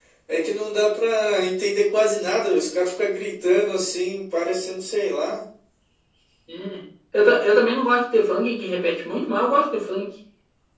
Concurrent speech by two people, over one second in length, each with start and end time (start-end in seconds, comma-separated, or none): none